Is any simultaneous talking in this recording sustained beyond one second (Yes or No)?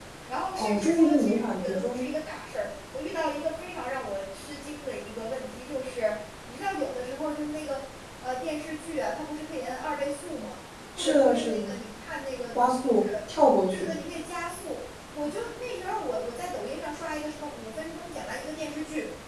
Yes